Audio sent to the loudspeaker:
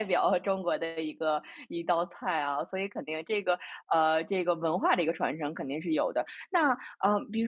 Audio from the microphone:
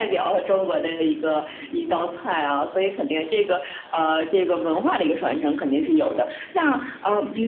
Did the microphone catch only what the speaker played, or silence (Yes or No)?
Yes